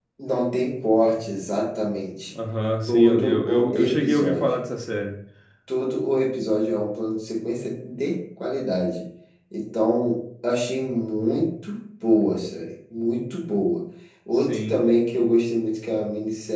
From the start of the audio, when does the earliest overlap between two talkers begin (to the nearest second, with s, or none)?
3 s